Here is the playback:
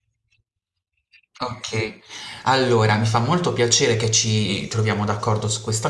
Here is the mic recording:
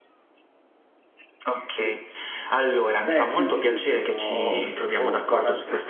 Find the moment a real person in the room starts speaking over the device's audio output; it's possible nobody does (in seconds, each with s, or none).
3.0 s